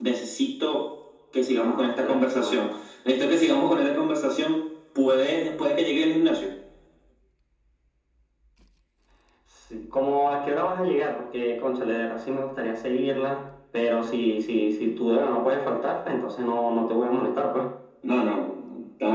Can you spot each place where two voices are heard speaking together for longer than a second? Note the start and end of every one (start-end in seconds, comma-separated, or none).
1.5-2.8